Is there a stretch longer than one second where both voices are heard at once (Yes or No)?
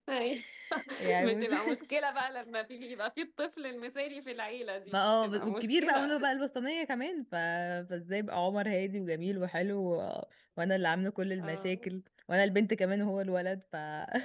Yes